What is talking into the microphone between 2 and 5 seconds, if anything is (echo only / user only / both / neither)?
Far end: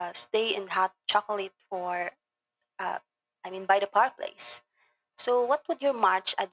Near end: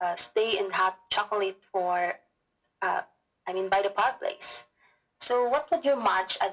echo only